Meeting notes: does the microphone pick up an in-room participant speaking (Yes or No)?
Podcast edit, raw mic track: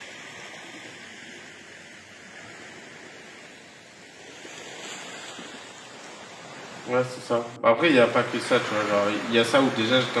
Yes